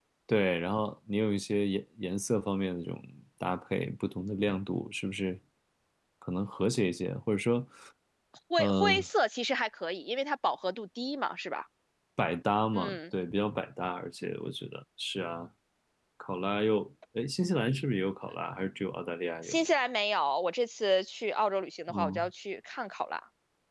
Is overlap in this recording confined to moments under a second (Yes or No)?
Yes